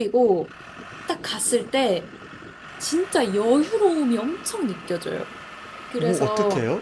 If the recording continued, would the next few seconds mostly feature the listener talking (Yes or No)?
Yes